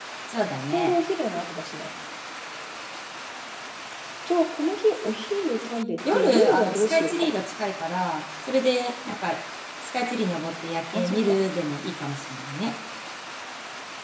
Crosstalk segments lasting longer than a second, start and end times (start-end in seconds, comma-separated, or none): 6.1-7.3